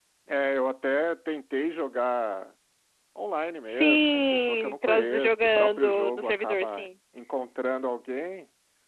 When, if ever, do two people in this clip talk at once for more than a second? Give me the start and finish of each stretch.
3.7-6.9

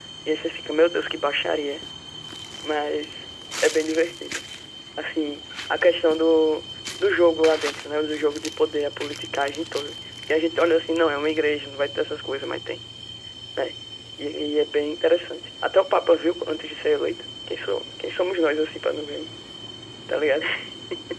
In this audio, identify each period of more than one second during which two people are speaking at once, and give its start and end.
none

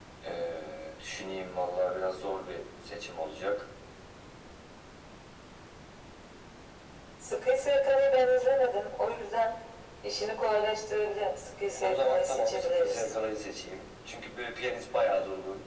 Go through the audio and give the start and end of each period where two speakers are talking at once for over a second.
11.8-13.1

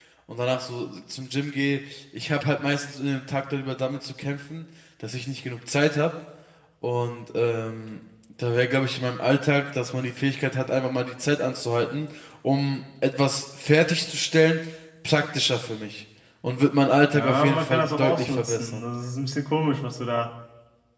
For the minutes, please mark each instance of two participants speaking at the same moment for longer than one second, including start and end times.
17.1-18.8

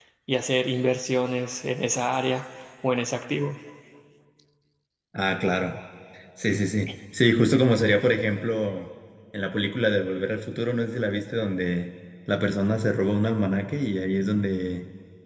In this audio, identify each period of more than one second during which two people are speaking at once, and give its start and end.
none

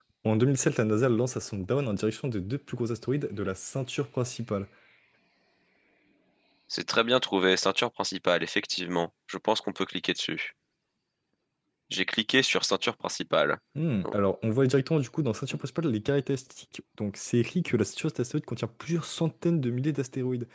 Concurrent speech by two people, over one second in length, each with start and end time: none

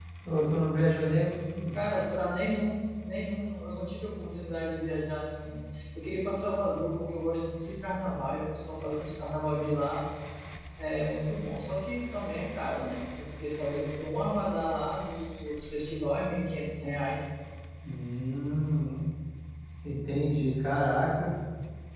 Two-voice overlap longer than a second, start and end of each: none

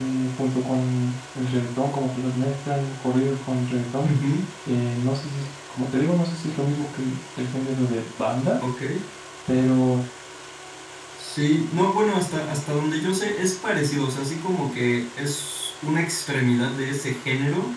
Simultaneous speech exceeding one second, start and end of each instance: none

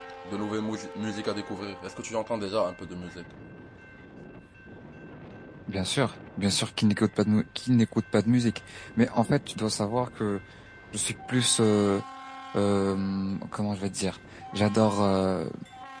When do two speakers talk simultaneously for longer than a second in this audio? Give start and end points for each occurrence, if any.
none

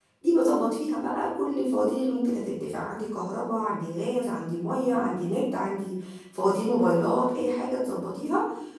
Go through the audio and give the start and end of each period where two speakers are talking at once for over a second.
none

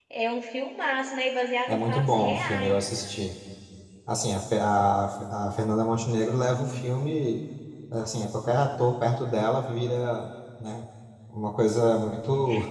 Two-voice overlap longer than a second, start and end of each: 1.7-2.9

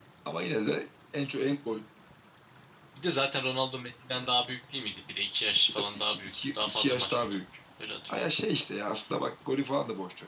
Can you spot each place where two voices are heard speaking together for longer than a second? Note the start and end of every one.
5.8-7.4

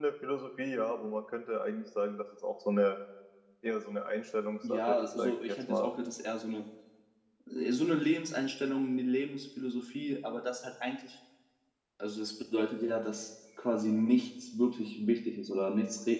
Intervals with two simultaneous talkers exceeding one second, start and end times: 4.7-5.9

